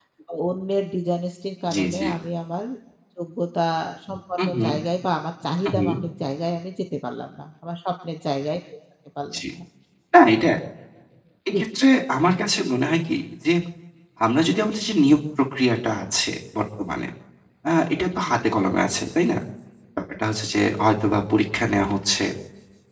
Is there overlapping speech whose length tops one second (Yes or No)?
No